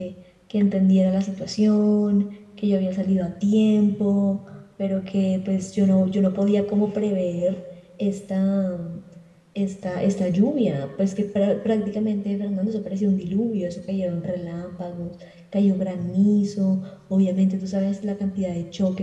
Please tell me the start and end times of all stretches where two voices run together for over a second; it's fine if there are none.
none

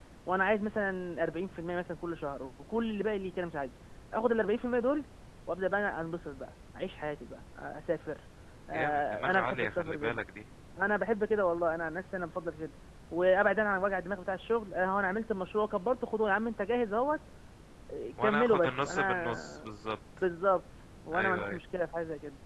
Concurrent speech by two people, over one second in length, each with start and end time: 8.7-10.2, 18.2-19.7

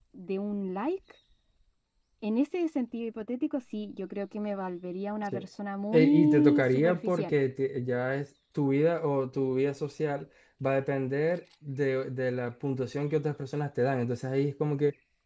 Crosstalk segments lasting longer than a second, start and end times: 5.9-7.3

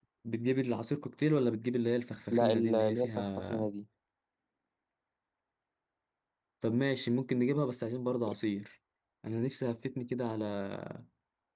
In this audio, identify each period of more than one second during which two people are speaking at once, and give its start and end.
2.3-3.7

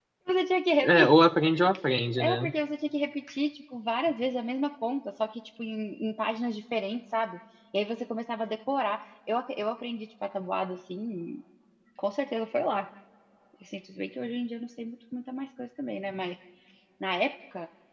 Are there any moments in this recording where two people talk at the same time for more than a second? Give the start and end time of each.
none

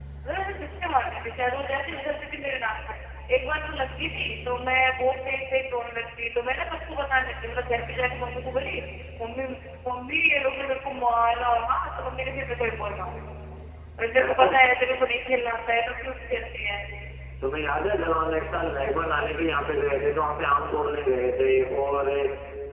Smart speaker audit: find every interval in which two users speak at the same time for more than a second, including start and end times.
none

